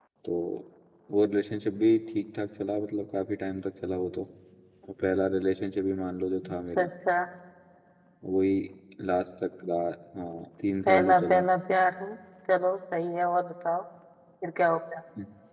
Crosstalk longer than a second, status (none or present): none